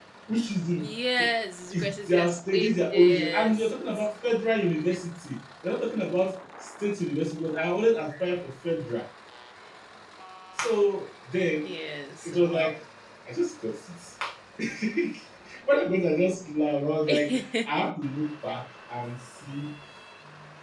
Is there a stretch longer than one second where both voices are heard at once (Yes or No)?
Yes